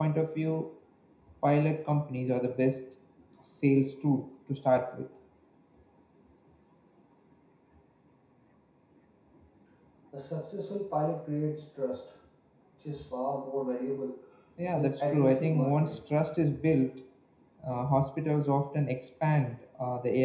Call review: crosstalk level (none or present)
present